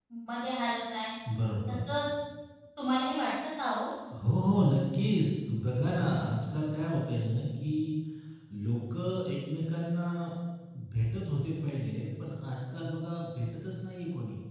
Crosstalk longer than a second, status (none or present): none